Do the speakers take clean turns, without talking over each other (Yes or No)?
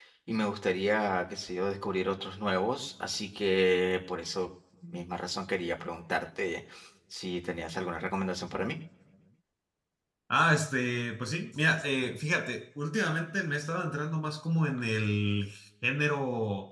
Yes